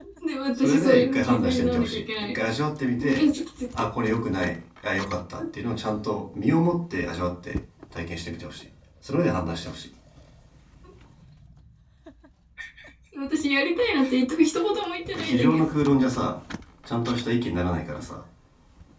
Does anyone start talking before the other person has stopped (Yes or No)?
Yes